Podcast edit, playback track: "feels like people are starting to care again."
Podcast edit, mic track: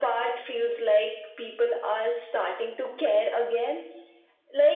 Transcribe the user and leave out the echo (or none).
none